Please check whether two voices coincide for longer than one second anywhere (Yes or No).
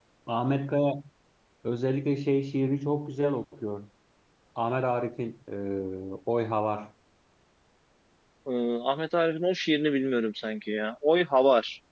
No